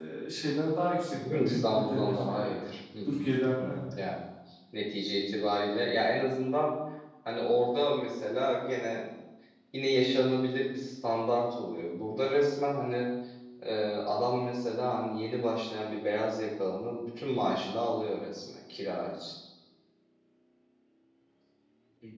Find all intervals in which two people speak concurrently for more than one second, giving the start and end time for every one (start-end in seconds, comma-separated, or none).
1.1-2.6